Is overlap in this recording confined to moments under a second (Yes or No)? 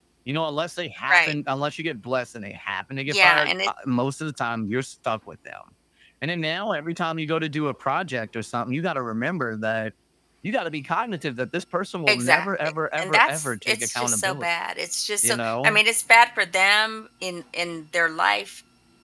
No